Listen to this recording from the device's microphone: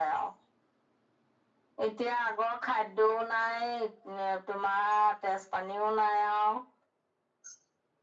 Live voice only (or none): none